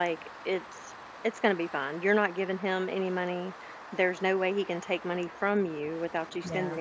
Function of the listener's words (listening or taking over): listening